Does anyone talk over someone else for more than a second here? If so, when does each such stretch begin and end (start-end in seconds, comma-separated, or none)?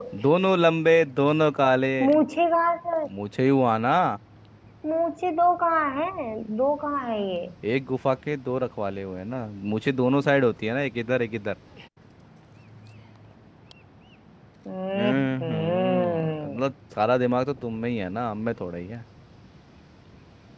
14.9-16.6